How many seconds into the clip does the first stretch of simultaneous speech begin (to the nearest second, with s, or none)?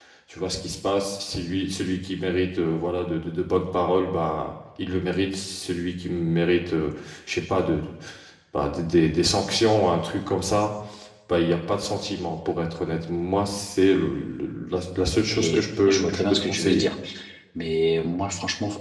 15 s